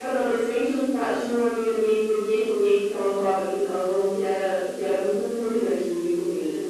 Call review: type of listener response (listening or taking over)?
taking over